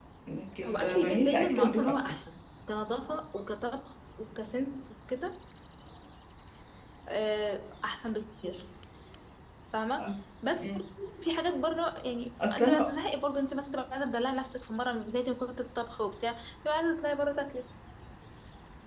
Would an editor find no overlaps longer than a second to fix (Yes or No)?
No